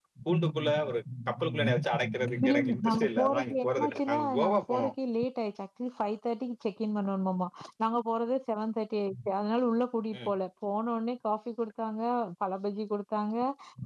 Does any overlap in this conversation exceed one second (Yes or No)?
Yes